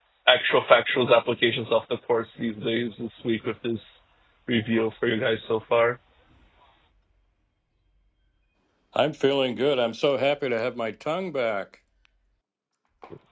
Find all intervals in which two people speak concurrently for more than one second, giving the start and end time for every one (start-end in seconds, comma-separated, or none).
none